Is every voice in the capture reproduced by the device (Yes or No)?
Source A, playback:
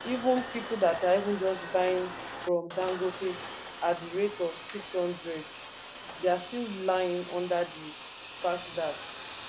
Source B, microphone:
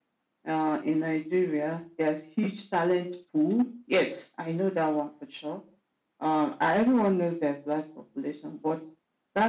No